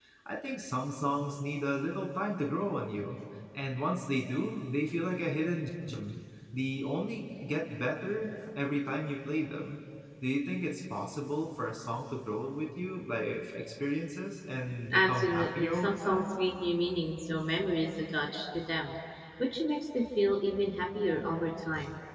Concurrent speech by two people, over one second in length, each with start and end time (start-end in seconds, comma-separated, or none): 14.9-16.4